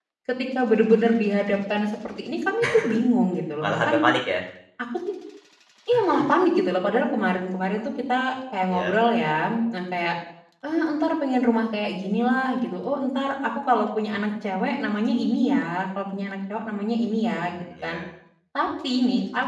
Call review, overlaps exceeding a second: none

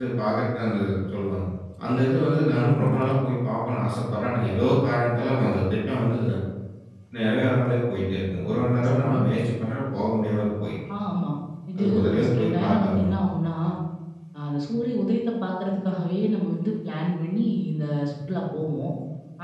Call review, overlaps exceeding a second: present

